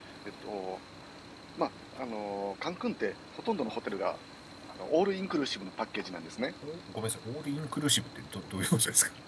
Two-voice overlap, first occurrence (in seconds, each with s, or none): none